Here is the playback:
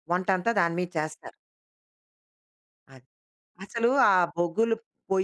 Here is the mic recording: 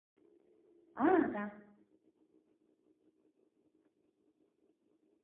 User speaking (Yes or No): Yes